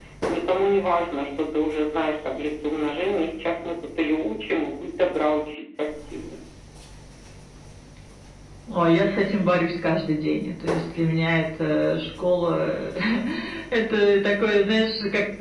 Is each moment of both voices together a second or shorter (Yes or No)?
Yes